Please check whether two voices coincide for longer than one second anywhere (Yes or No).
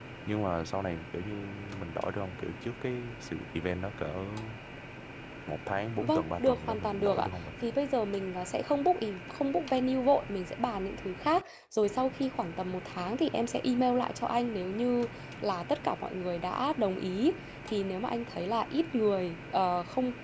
Yes